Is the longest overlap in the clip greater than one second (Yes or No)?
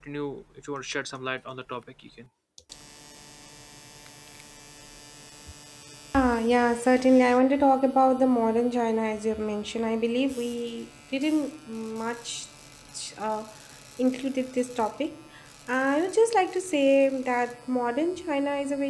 No